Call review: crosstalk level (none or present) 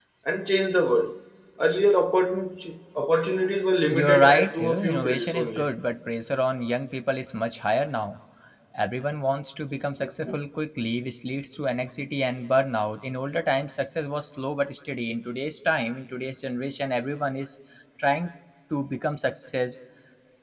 present